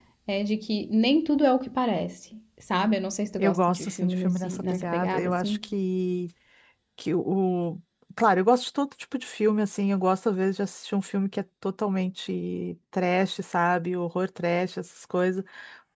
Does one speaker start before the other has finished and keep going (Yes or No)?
Yes